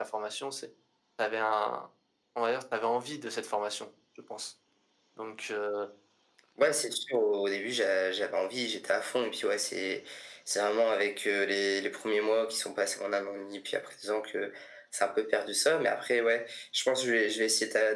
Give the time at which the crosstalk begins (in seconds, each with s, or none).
none